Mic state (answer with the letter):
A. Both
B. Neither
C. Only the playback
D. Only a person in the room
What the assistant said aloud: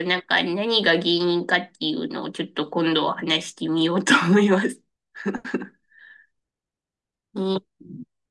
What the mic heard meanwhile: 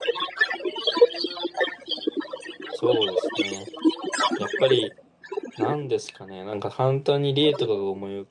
A